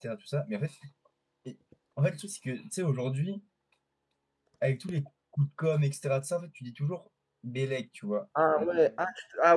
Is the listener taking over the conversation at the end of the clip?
Yes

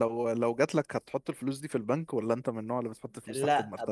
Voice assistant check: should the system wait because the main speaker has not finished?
No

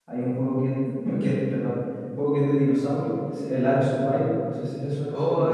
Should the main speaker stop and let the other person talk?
Yes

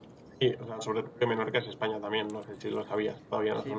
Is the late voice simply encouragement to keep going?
No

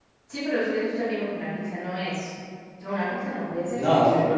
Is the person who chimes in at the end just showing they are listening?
No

